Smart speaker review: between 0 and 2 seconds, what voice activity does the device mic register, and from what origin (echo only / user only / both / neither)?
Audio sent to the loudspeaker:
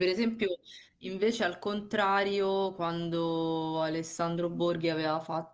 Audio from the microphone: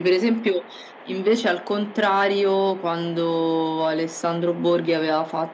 echo only